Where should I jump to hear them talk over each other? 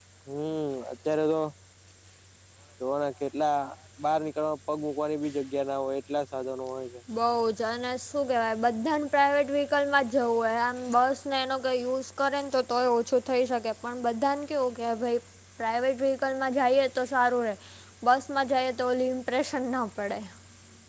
none

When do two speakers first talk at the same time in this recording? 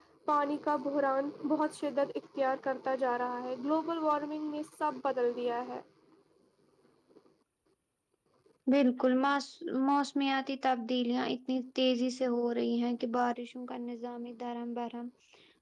none

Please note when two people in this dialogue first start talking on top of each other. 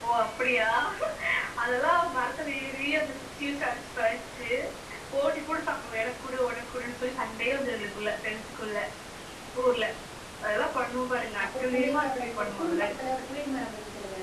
11.3 s

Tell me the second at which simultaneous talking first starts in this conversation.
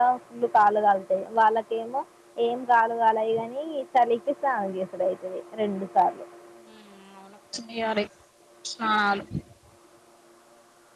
none

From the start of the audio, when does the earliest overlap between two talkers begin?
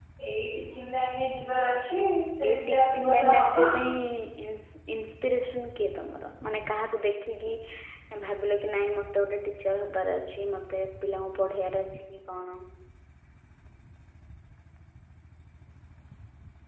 2.4 s

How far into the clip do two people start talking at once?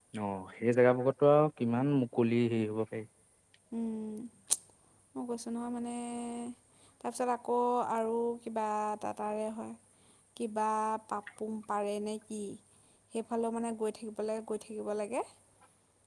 none

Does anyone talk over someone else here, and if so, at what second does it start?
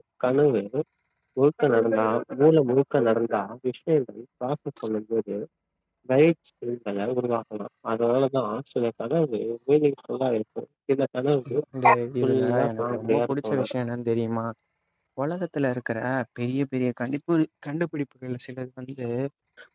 12.2 s

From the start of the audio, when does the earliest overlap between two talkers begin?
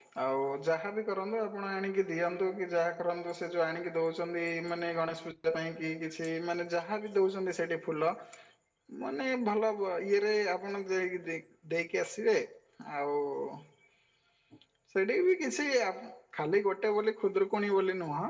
none

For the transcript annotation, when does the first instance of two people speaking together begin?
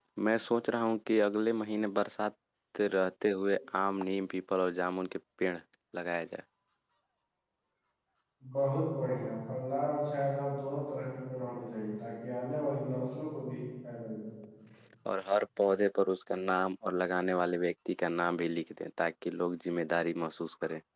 none

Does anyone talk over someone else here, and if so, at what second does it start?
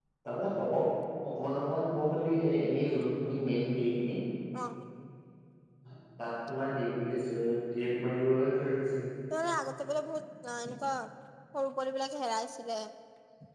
none

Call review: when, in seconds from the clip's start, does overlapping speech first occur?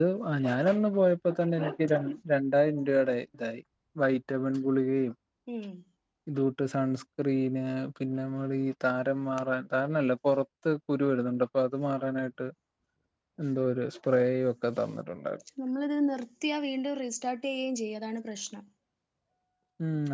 none

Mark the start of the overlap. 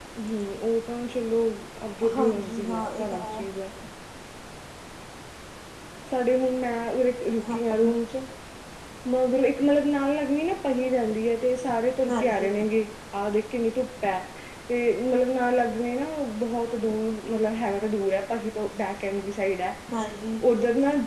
2.1 s

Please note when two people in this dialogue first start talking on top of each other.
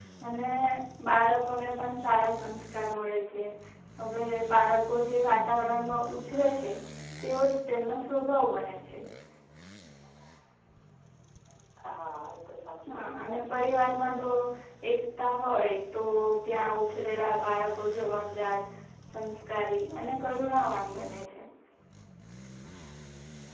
12.9 s

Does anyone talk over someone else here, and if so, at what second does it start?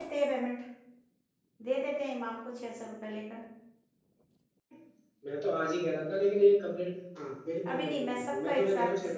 7.6 s

